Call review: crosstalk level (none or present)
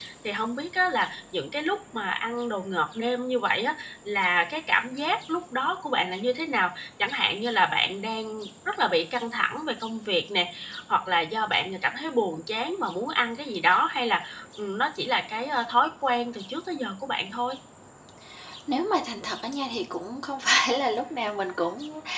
none